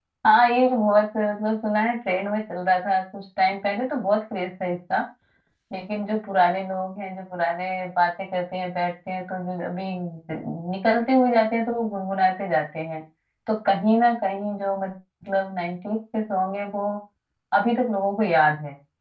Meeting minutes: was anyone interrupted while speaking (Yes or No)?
No